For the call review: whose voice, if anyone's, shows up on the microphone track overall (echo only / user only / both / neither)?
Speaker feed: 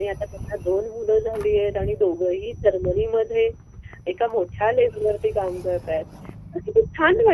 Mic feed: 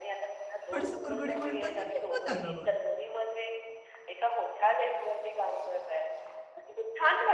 both